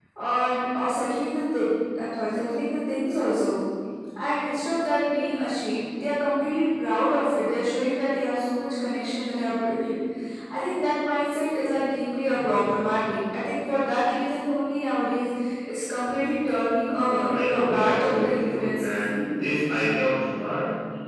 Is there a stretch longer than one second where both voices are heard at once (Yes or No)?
Yes